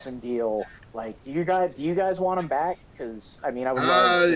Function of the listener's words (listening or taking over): taking over